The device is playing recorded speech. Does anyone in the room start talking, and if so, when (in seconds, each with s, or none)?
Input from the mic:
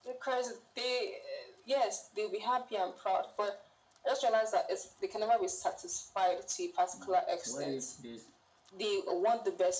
7.0 s